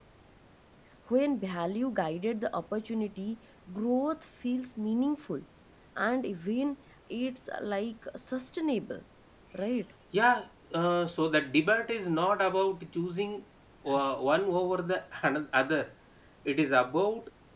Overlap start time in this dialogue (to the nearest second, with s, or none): none